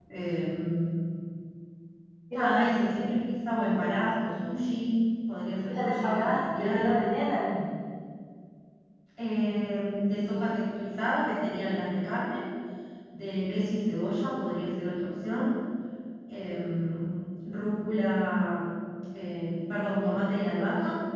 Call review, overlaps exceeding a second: present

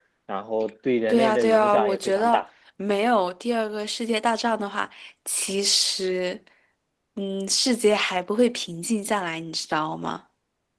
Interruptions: present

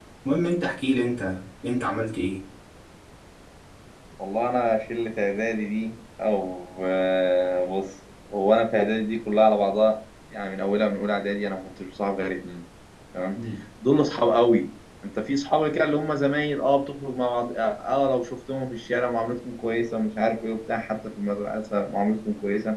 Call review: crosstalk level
none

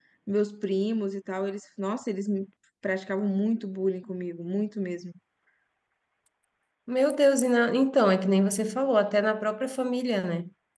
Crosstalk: none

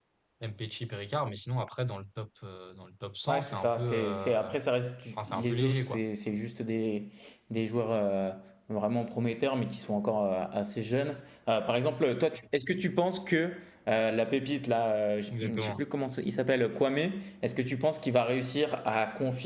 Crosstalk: present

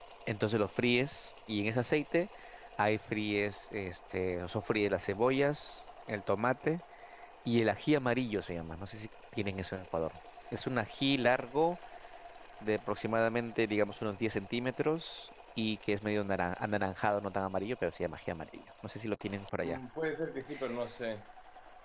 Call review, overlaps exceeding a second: none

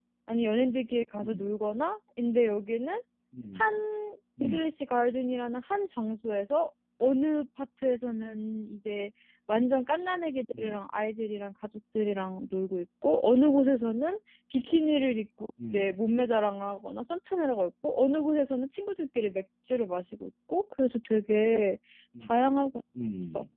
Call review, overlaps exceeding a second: none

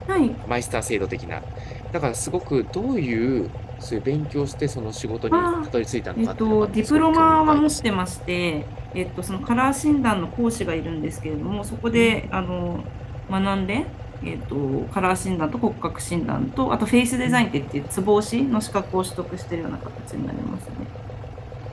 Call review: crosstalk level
present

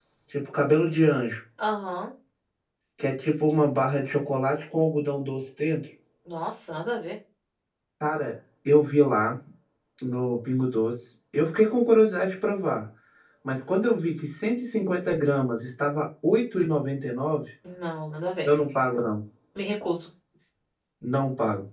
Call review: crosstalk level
none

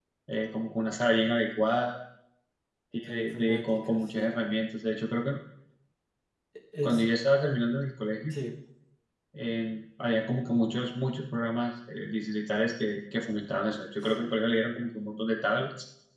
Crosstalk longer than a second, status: present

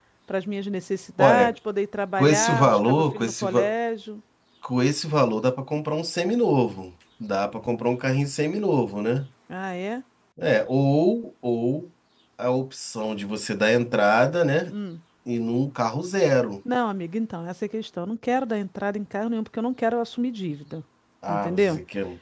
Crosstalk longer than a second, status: present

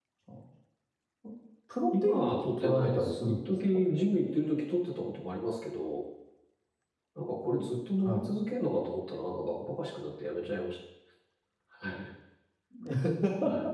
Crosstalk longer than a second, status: present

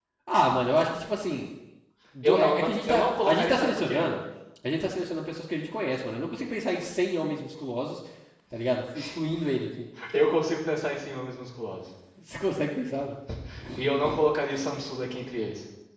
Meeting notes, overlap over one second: present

